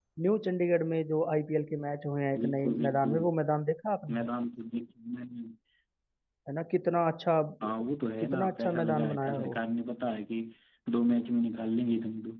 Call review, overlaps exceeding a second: present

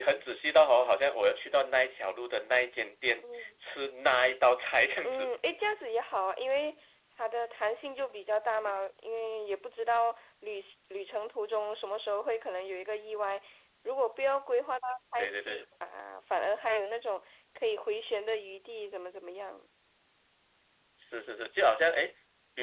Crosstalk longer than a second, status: none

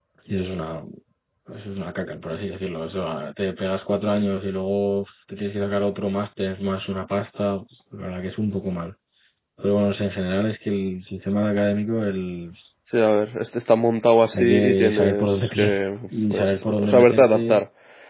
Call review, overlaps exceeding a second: present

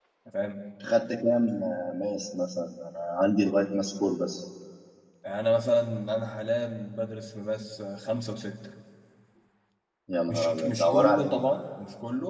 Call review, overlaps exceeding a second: present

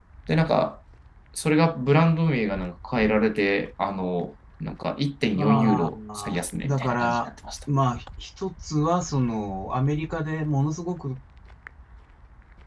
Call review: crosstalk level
present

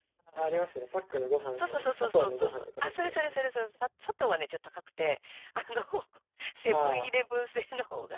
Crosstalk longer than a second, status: present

